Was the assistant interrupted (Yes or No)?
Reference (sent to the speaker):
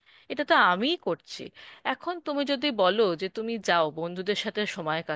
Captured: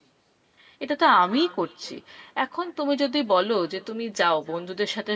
No